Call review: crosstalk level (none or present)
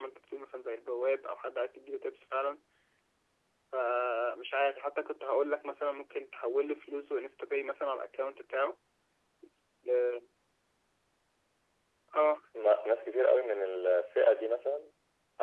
none